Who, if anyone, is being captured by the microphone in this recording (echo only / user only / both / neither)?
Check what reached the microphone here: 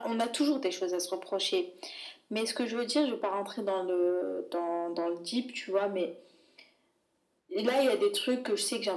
echo only